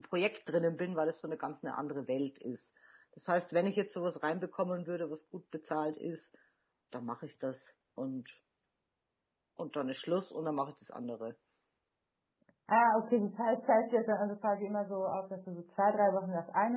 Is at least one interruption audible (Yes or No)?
No